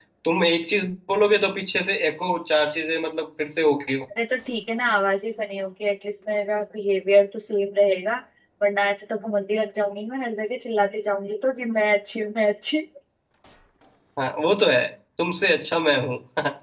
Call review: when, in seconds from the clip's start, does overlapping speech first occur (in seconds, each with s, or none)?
none